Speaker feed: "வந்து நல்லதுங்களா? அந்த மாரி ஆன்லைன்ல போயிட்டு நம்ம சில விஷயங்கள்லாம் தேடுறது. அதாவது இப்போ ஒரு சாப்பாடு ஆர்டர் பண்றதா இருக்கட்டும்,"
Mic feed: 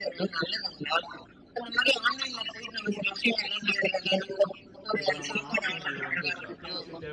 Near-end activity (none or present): present